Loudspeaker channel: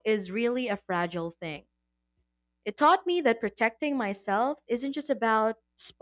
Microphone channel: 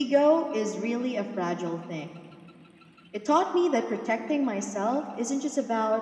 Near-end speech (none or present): none